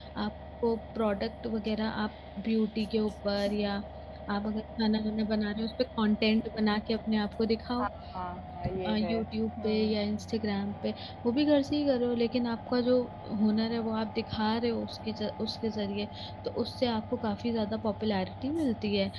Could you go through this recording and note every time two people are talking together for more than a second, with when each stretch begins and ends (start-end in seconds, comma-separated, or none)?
none